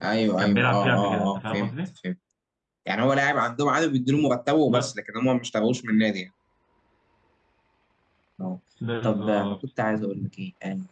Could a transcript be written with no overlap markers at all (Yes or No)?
No